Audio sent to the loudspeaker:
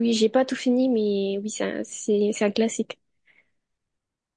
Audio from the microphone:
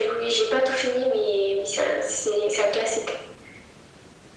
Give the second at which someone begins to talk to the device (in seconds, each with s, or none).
none